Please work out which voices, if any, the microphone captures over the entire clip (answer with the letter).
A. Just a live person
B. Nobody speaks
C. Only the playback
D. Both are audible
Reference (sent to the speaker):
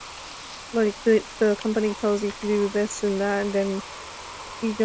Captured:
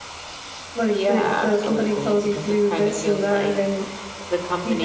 D